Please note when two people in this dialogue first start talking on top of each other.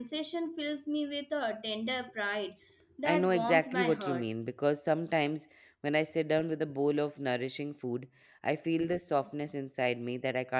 3.0 s

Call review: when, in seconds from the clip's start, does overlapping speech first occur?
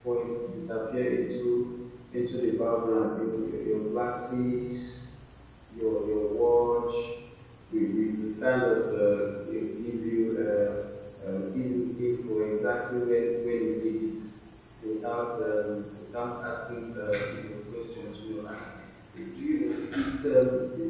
none

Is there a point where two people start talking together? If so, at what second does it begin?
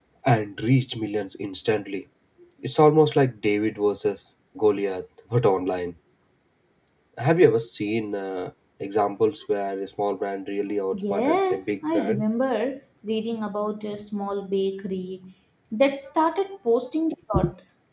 10.9 s

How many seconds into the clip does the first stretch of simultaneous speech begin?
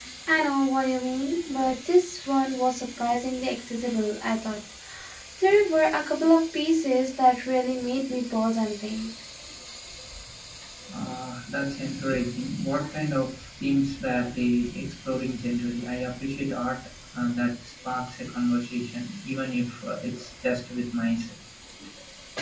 none

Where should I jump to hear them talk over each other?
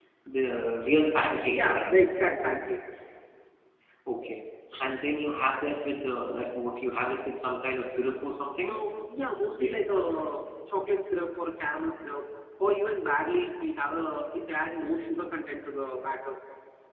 1.5 s

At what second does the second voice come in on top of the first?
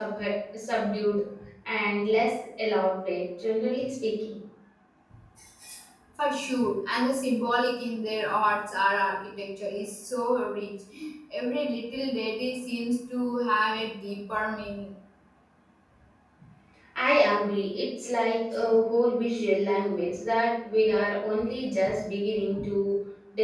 none

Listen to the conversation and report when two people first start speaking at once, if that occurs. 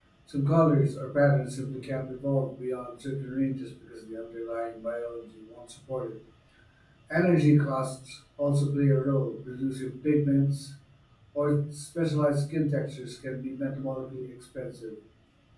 none

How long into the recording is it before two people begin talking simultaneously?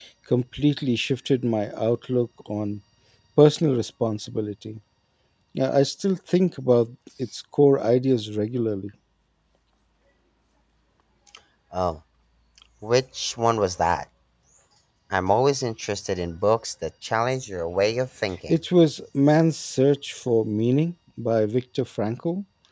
none

